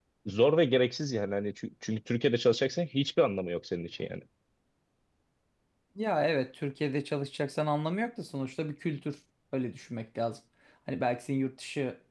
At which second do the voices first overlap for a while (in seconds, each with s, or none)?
none